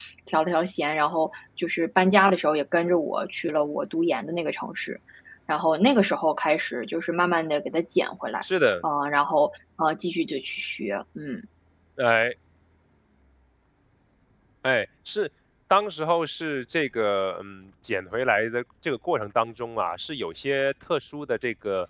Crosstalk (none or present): none